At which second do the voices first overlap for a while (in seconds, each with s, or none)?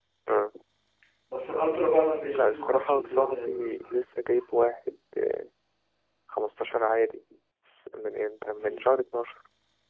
2.3 s